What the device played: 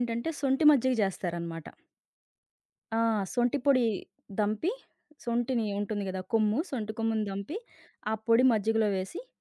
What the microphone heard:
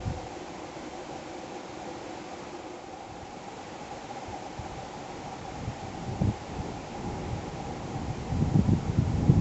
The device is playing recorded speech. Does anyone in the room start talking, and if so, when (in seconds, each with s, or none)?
none